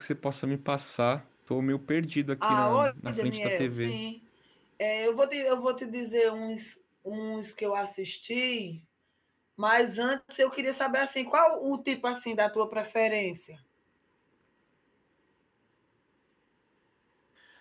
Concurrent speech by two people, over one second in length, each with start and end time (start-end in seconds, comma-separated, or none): 2.4-4.0